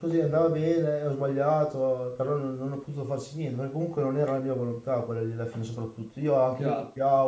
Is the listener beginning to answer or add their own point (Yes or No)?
Yes